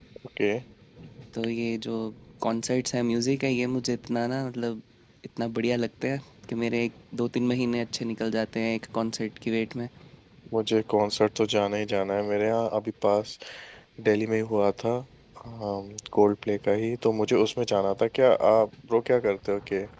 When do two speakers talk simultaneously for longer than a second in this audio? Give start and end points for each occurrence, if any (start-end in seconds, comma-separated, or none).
none